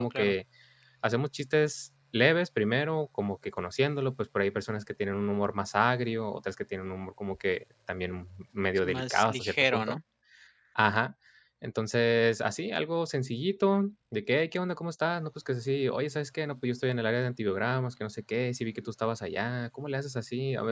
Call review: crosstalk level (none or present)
present